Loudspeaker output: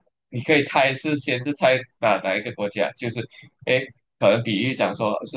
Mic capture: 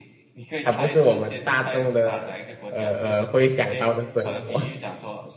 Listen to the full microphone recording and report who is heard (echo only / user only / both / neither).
both